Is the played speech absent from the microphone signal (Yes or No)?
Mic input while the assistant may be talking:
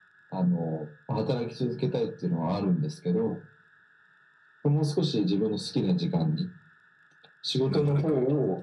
No